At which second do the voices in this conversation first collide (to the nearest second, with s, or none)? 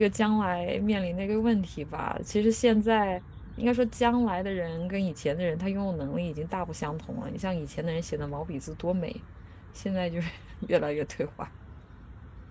none